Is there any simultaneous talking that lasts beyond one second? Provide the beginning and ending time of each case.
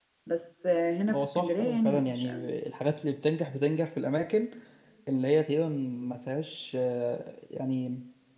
1.1-2.5

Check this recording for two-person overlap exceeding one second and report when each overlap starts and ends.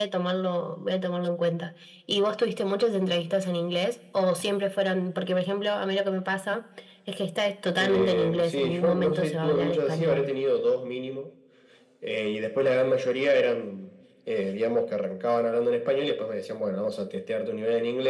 7.8-10.3

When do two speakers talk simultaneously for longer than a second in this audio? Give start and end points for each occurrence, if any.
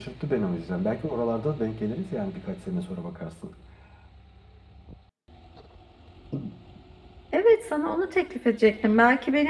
none

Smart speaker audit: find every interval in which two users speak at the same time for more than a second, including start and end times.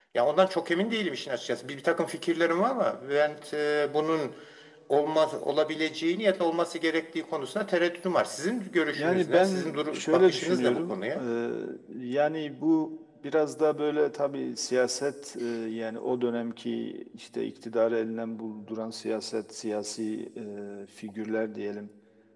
8.9-11.2

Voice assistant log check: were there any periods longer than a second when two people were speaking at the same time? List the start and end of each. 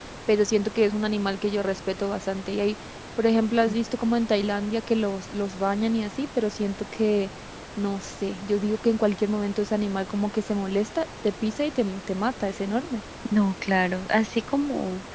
none

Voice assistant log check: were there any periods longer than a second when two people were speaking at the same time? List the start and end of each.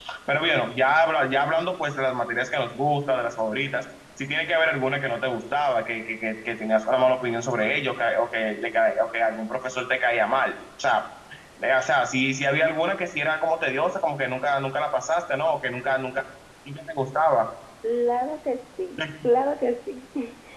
none

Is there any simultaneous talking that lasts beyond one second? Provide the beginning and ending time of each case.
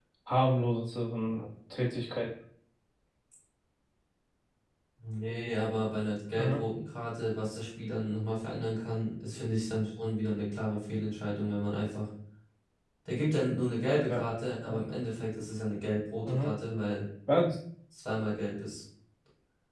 none

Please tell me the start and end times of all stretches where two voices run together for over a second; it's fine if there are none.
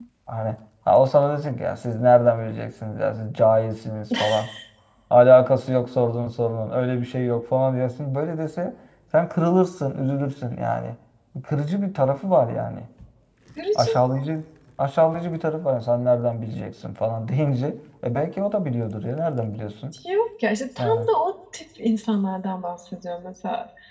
none

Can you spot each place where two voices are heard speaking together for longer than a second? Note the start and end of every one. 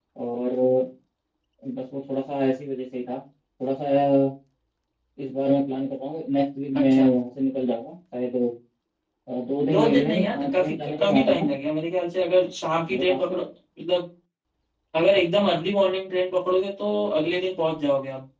9.7-11.4

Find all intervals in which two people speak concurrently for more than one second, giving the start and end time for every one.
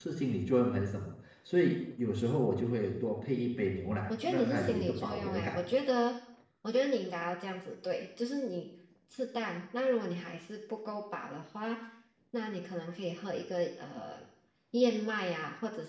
4.2-5.6

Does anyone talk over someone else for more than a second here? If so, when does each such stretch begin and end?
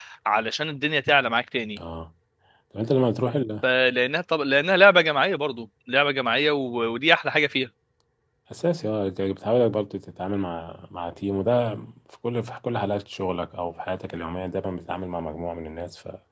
none

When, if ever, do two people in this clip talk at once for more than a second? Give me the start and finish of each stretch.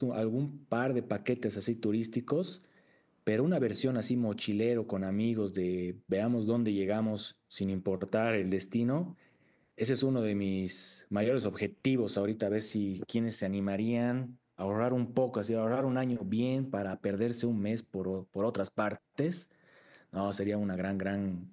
none

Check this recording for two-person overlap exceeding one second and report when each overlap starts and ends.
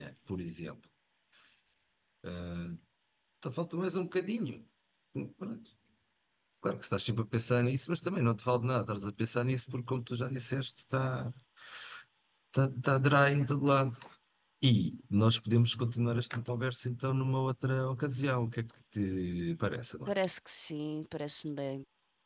none

